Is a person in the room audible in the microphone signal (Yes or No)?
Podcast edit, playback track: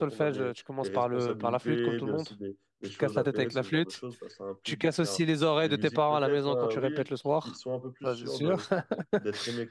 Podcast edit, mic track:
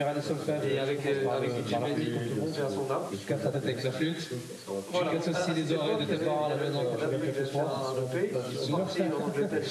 Yes